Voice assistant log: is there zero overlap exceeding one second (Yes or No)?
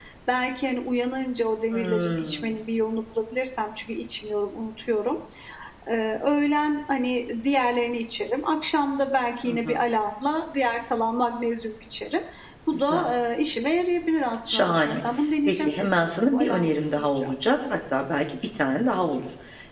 No